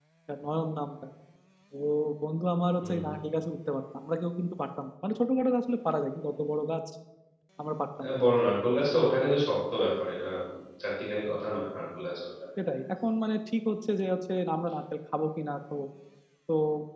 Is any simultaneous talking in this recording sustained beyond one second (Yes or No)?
No